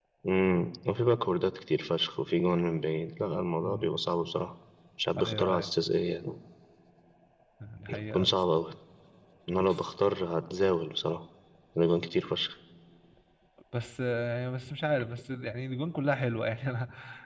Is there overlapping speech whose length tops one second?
No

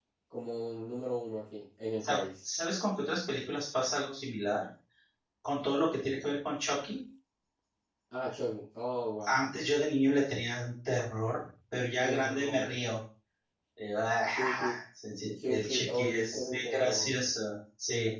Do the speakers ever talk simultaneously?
Yes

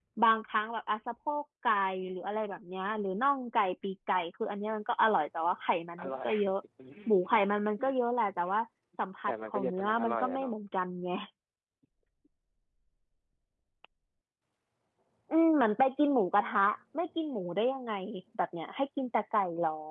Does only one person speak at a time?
No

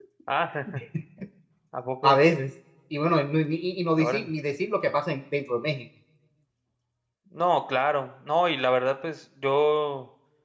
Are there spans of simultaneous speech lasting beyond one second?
No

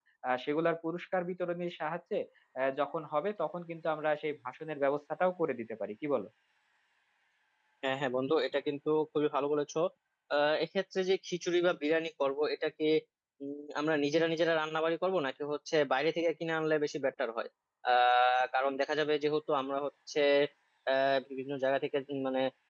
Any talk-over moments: No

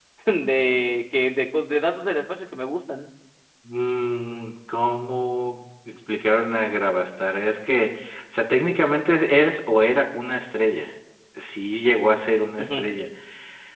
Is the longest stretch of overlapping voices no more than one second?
Yes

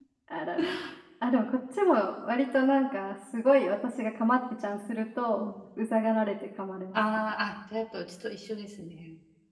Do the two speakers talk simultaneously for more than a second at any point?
No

